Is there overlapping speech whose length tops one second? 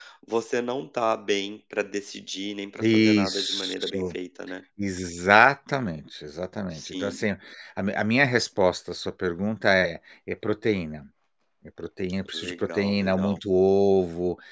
Yes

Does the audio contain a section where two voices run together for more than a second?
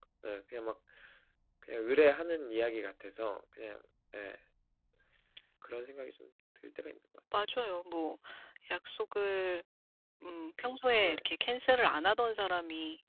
No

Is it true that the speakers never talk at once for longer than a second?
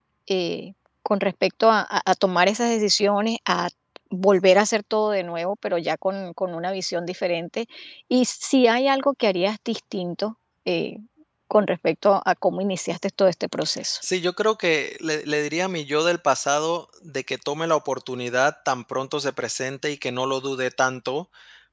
Yes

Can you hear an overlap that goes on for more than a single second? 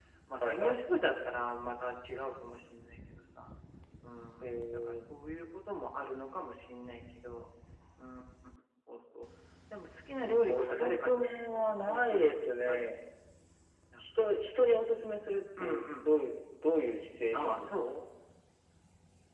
Yes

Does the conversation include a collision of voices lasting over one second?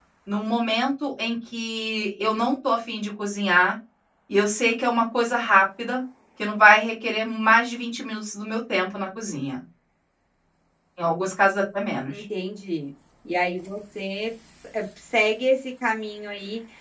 No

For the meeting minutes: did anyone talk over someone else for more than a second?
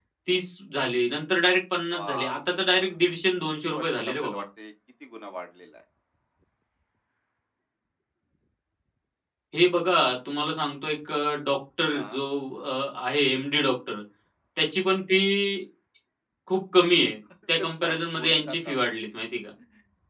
Yes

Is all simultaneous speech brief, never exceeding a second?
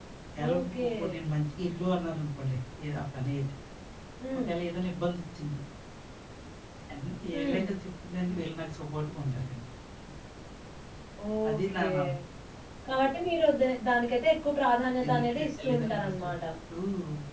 No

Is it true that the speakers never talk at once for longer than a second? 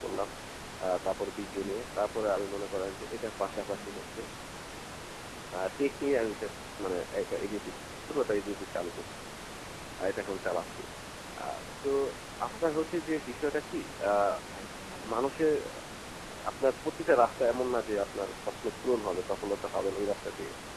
Yes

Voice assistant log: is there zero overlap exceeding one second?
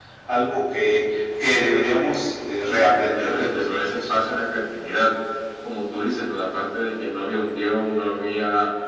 No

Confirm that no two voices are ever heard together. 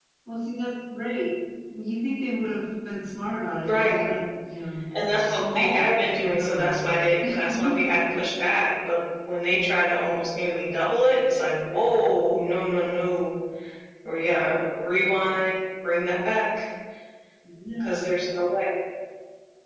No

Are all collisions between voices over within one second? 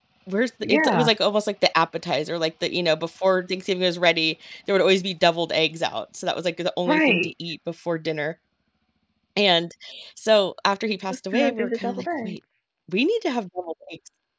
No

